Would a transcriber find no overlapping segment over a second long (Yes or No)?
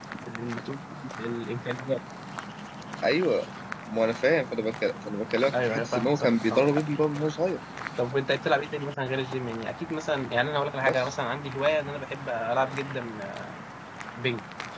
No